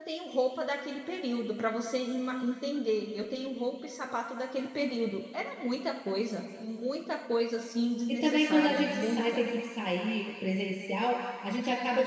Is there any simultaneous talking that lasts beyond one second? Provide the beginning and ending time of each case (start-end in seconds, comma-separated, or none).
8.1-9.4